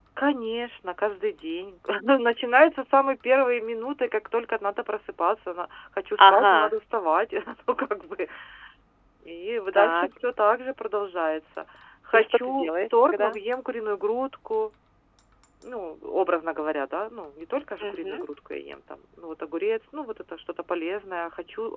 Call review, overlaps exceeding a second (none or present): present